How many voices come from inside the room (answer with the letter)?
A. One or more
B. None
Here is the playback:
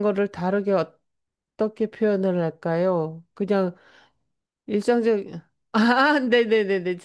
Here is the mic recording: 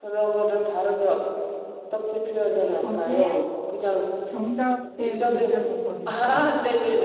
A